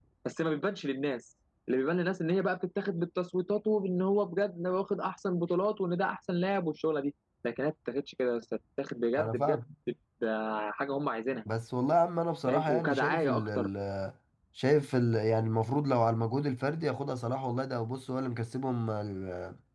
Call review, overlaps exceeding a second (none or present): present